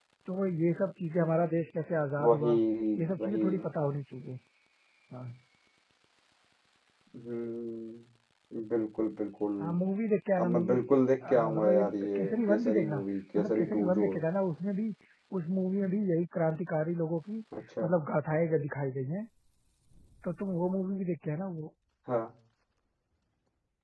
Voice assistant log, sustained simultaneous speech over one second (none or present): present